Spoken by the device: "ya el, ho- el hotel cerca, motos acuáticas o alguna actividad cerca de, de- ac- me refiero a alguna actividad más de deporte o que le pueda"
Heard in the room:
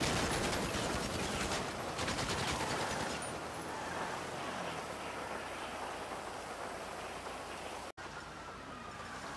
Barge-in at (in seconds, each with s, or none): none